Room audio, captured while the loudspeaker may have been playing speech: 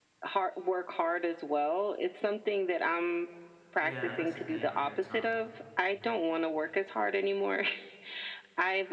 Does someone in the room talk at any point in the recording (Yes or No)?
Yes